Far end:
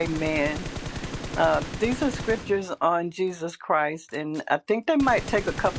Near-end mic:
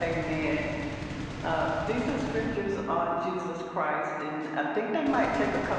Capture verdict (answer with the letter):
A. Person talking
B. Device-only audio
B